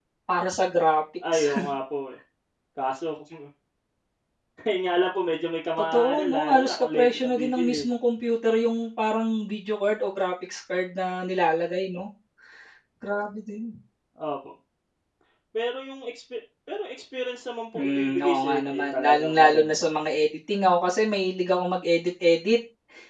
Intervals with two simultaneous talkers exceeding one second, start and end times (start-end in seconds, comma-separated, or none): 5.9-7.9, 17.8-19.9